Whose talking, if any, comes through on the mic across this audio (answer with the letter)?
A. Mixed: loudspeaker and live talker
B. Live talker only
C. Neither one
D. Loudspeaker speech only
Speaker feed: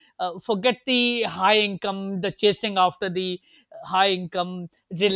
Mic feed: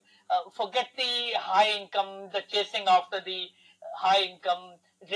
D